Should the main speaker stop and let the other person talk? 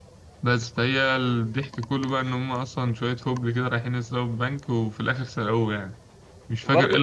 Yes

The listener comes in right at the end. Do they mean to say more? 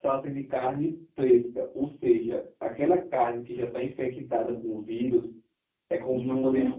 No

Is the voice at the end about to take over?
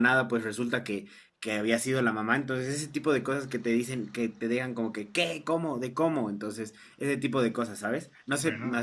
No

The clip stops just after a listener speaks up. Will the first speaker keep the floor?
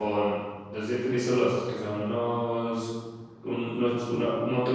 Yes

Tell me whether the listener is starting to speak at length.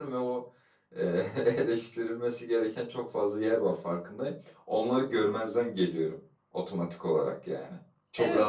Yes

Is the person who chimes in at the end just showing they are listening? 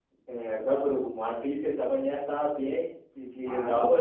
Yes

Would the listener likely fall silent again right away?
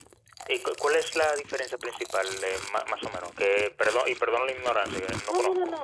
No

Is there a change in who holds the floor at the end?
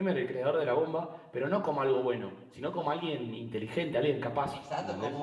Yes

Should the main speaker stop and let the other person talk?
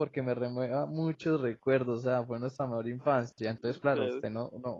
No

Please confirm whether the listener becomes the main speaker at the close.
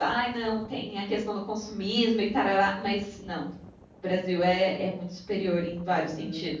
Yes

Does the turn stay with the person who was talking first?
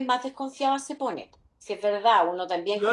Yes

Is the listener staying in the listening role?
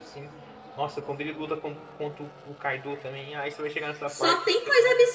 No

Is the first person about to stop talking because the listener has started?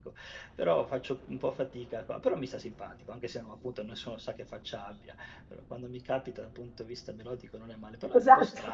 Yes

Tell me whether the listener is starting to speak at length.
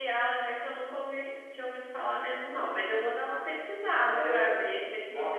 Yes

